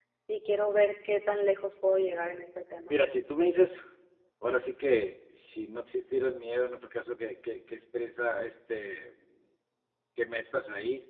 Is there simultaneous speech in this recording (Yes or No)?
No